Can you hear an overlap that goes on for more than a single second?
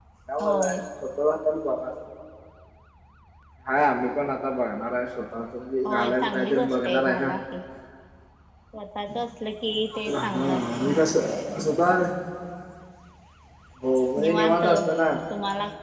Yes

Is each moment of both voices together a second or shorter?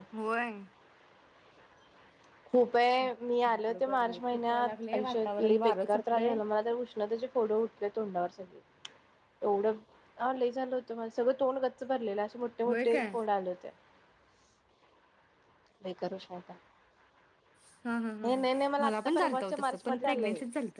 No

